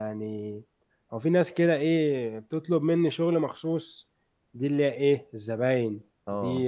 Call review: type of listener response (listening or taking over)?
listening